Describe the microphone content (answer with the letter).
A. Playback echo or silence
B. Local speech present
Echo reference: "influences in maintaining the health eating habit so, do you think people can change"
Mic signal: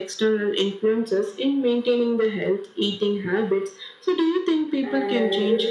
B